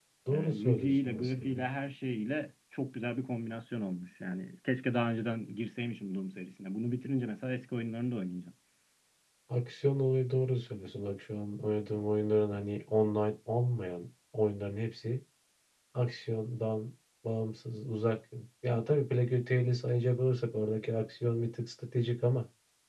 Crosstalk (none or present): present